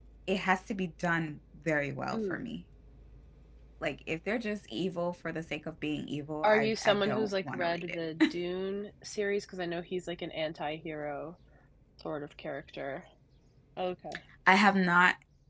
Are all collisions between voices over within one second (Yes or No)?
No